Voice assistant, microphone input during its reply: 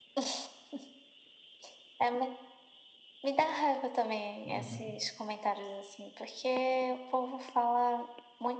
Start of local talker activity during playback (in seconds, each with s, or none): 4.4 s